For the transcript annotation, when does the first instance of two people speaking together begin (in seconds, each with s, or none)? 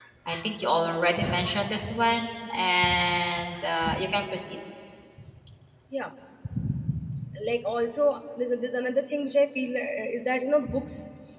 none